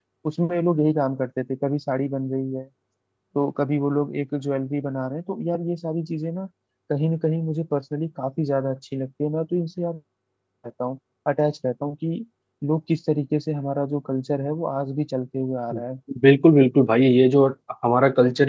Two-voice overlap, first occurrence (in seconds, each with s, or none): none